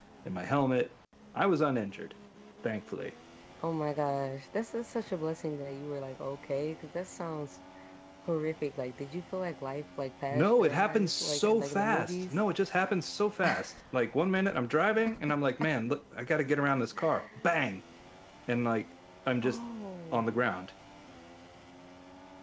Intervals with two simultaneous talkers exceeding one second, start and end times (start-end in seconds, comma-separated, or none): 10.3-12.4